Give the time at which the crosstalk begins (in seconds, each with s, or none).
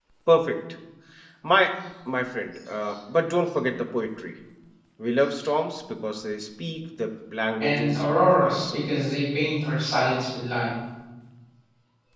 7.6 s